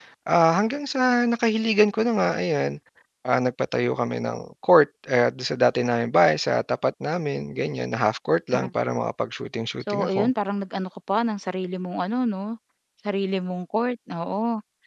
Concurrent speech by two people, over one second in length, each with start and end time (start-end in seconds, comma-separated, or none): none